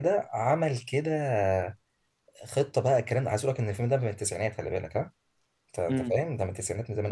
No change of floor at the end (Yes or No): Yes